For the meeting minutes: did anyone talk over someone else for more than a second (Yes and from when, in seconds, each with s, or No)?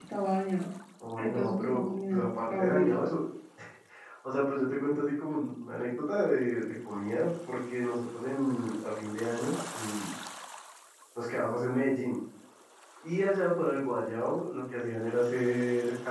Yes, from 1.2 s